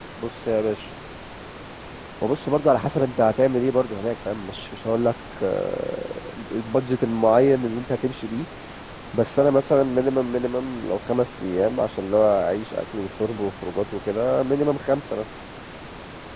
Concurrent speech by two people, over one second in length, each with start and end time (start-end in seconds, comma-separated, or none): none